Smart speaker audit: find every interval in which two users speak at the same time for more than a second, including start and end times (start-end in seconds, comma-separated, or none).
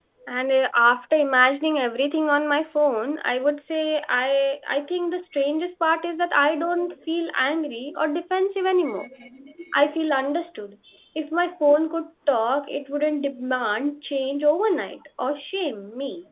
none